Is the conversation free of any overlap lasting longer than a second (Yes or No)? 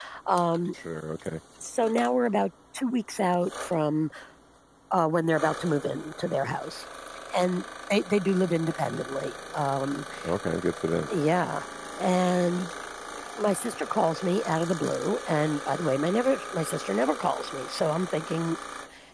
Yes